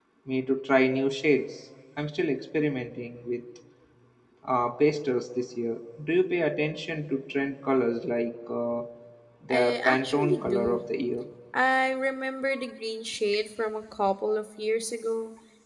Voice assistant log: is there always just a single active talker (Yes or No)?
No